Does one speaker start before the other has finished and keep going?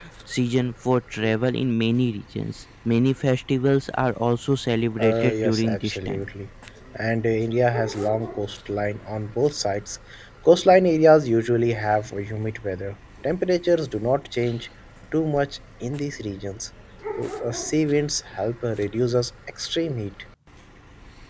Yes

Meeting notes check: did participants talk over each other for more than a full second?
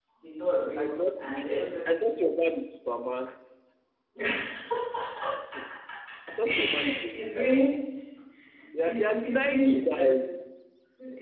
Yes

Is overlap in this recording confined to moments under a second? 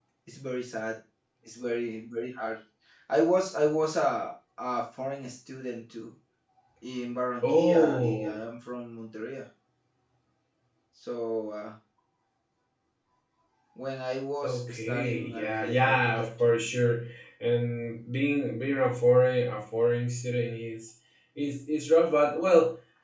No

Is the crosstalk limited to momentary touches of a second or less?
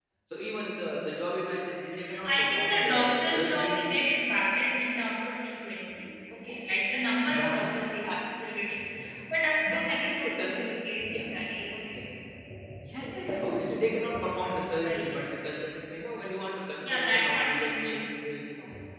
No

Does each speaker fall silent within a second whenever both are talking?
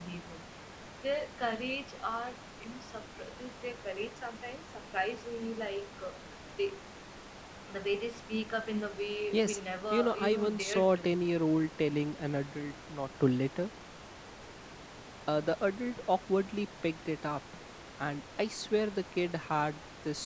No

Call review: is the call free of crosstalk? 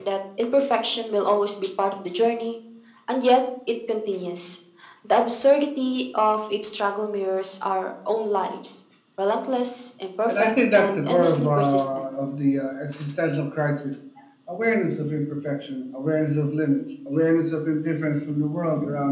No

